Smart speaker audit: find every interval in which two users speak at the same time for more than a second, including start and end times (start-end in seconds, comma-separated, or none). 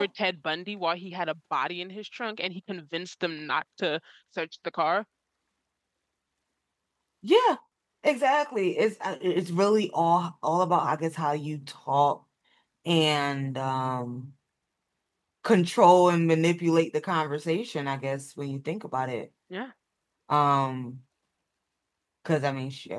none